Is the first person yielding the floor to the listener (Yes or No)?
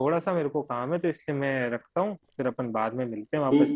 Yes